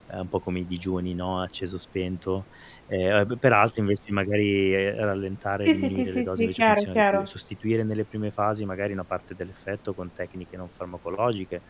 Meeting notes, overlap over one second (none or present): present